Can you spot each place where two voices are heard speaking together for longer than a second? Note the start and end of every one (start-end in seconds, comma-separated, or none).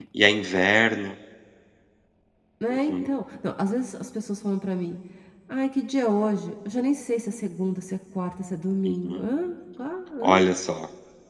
none